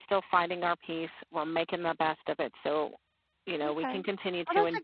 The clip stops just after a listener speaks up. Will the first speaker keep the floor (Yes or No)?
No